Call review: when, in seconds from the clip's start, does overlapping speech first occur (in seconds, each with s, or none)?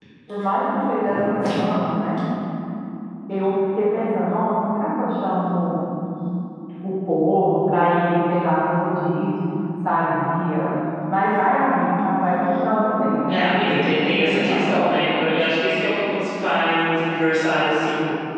13.3 s